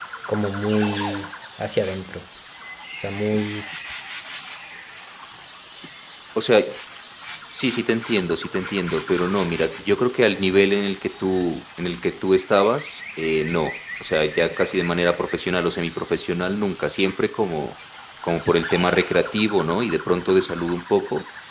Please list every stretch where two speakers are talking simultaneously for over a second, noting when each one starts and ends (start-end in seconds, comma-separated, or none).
none